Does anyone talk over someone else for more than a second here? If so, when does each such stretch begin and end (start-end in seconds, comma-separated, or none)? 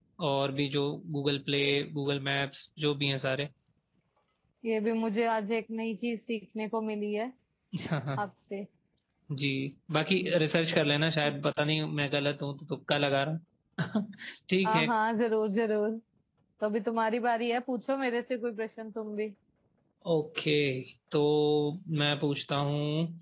none